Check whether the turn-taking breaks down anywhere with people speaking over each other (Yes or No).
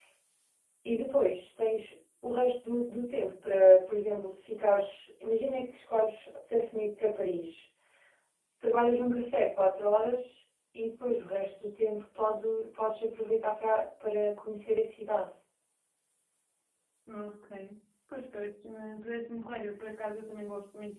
No